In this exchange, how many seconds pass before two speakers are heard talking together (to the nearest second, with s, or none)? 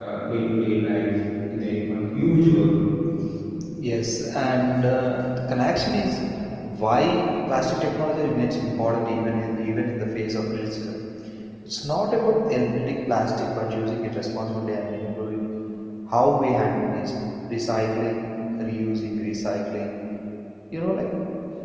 none